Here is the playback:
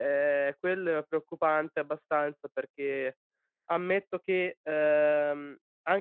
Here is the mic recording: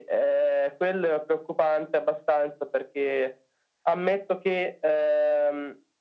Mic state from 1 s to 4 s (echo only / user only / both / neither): echo only